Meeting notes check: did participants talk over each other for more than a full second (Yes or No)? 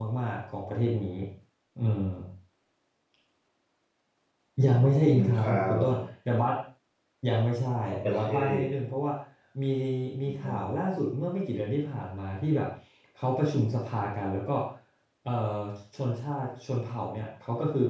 Yes